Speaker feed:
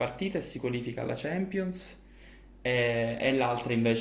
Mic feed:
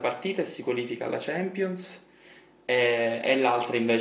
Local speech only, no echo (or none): none